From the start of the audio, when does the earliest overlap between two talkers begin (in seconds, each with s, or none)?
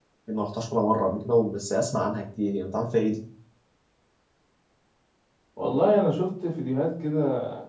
none